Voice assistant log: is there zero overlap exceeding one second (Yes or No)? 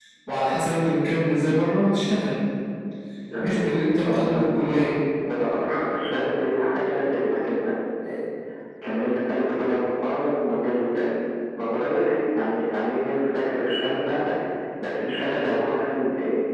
No